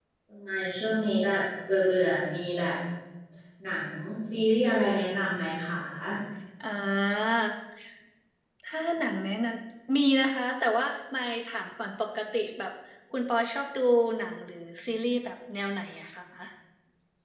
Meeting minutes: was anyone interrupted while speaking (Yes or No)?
No